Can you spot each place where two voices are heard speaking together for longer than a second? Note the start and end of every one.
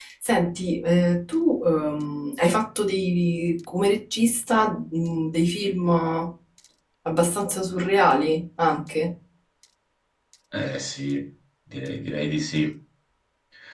none

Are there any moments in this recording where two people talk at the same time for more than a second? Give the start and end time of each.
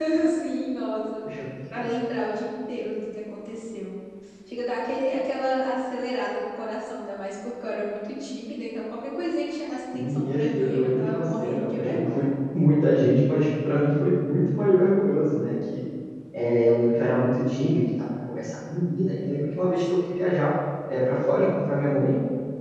9.9-12.3

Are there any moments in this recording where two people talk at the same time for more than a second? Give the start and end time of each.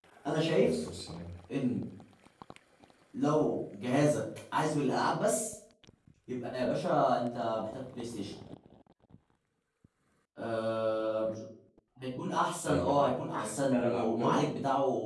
12.7-14.4

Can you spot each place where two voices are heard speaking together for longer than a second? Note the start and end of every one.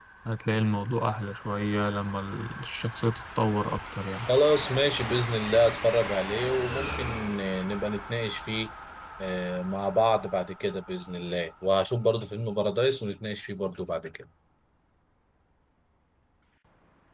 none

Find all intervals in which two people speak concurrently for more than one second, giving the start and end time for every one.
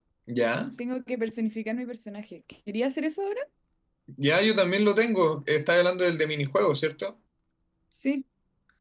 none

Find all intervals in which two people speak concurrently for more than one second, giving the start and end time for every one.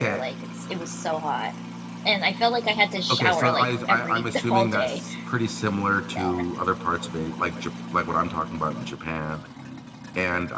3.1-5.0

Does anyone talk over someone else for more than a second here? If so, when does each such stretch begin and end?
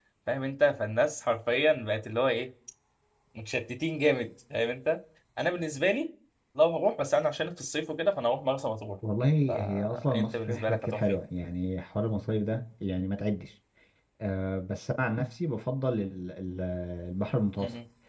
9.5-11.2

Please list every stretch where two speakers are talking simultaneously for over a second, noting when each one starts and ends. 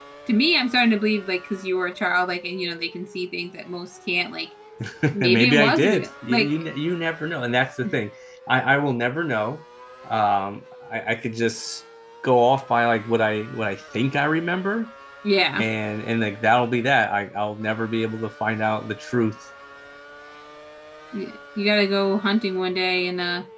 5.2-6.6

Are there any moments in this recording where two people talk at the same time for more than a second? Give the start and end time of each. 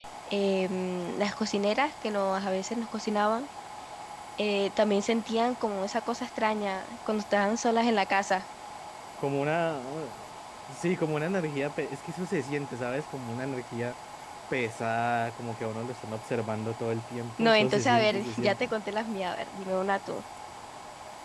17.4-18.7

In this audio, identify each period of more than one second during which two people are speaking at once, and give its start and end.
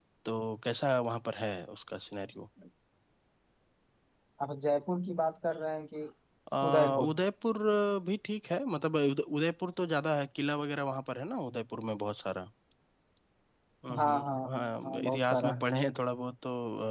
14.0-15.6

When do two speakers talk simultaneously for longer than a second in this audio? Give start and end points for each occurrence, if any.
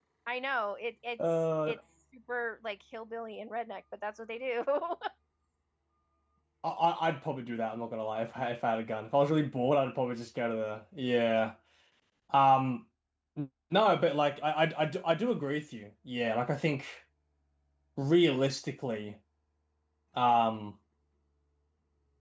none

